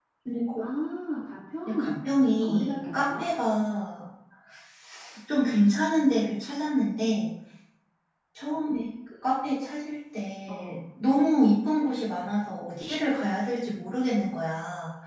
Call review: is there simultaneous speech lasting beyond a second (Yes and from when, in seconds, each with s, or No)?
Yes, from 1.6 s